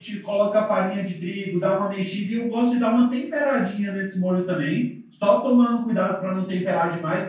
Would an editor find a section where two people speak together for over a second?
No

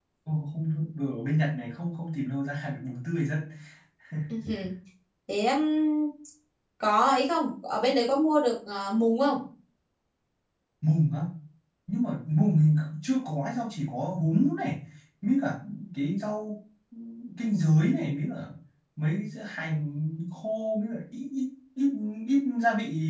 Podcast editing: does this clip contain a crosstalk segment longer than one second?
No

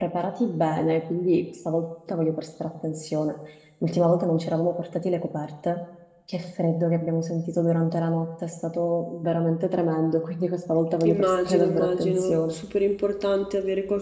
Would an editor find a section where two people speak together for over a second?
Yes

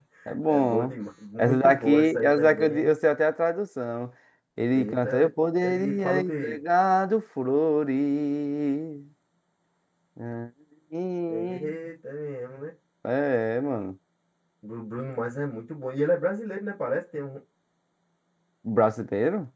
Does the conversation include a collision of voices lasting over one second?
Yes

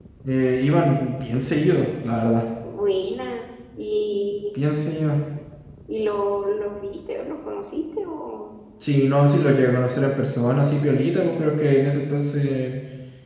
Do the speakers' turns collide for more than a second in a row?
No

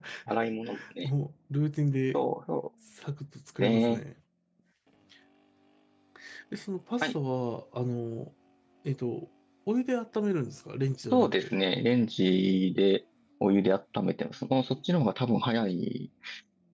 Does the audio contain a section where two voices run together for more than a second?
No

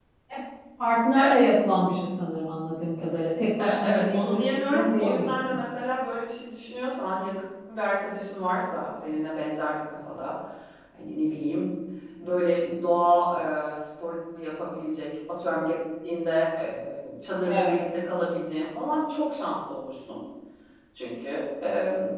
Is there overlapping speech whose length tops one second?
Yes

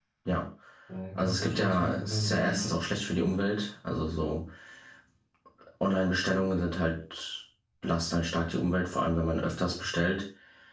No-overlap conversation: No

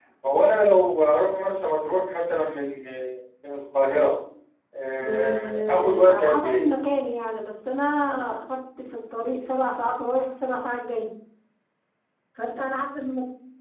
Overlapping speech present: Yes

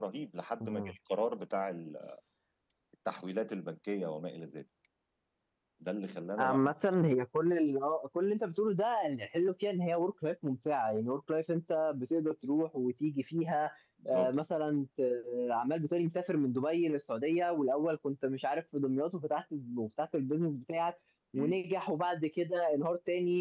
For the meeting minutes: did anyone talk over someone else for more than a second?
No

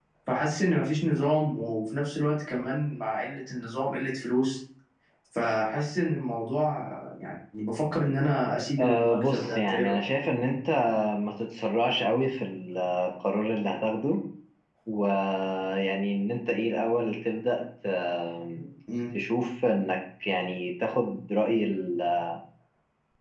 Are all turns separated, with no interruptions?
No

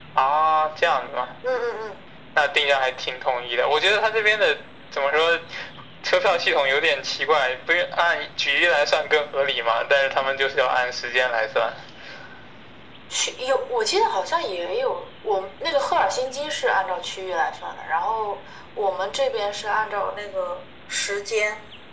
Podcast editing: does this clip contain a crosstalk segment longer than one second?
No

